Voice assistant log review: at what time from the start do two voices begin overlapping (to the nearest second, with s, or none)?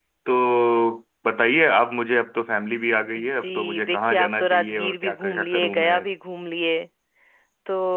3 s